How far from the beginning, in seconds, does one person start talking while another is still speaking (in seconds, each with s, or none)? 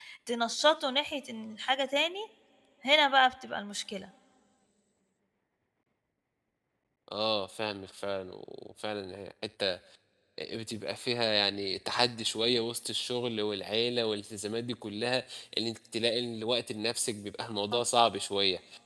none